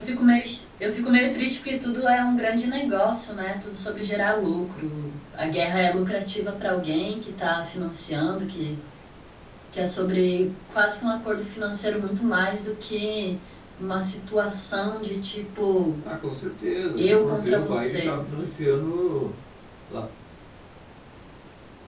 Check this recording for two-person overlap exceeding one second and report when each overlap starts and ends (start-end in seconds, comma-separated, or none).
17.0-18.2